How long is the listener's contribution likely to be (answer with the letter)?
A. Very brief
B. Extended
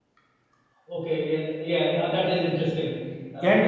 B